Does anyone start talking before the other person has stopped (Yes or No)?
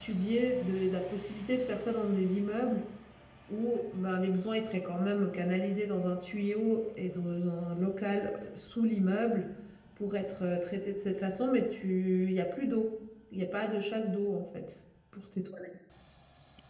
No